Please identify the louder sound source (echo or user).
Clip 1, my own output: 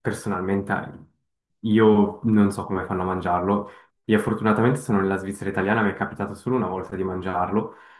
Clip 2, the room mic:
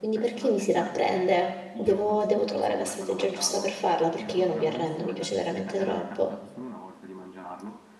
user